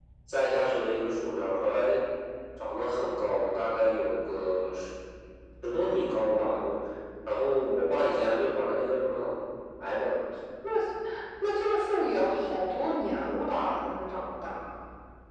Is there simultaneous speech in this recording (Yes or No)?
No